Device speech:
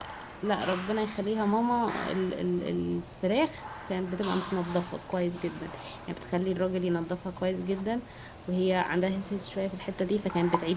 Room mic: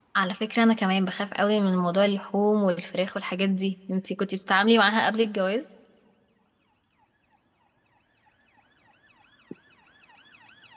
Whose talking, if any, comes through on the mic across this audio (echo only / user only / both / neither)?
user only